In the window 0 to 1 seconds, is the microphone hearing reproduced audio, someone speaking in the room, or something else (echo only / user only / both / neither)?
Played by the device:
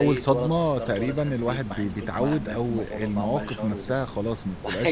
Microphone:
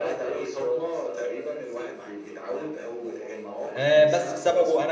echo only